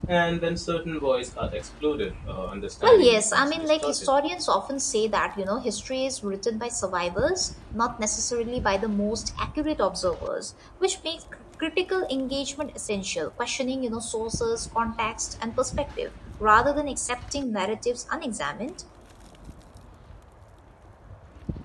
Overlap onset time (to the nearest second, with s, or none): 3 s